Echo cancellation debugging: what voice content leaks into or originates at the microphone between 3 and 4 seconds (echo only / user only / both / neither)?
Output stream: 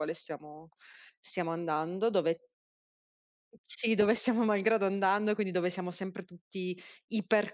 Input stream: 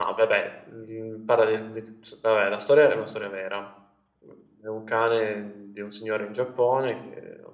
user only